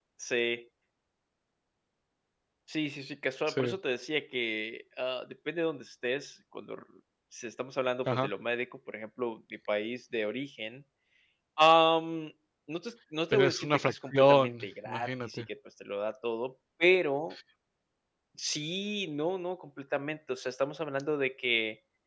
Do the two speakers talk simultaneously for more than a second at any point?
Yes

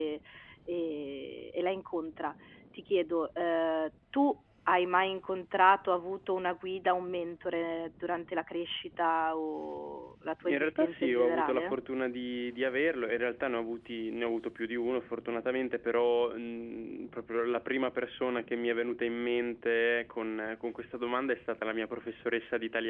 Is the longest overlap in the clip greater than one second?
Yes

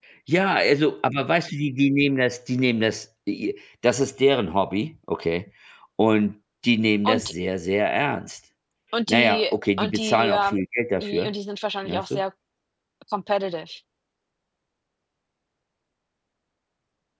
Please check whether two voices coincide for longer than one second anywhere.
Yes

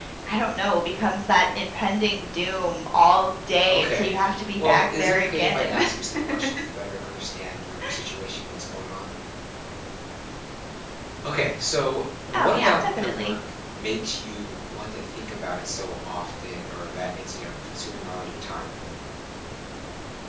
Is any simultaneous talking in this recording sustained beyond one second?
Yes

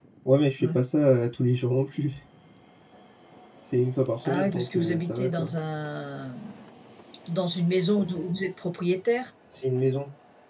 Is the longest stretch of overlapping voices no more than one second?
No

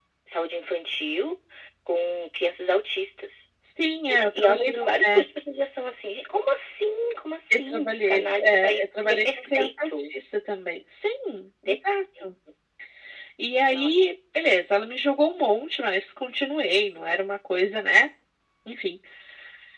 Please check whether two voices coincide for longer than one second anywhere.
Yes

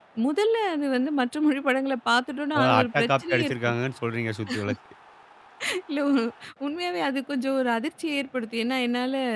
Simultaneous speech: Yes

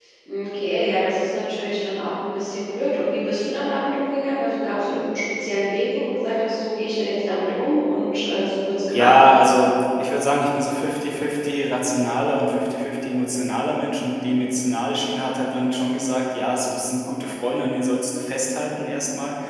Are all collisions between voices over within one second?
Yes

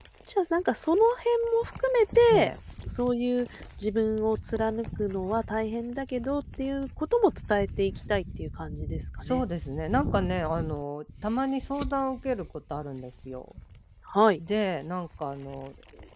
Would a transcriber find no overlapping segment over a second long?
Yes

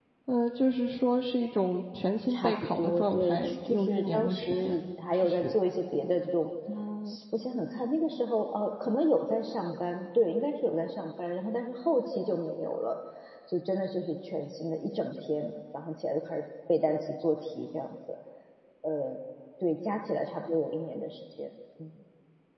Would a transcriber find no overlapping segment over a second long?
No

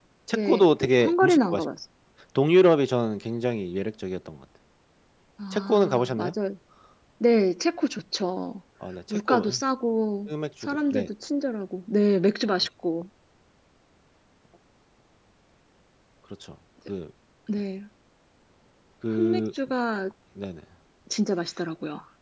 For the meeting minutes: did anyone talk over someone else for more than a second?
Yes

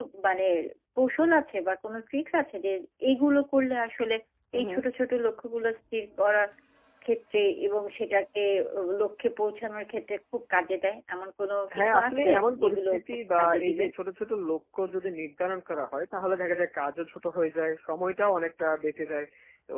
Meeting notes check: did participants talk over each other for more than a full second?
Yes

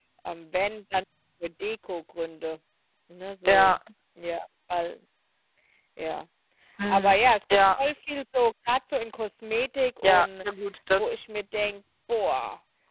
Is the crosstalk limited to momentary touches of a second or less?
Yes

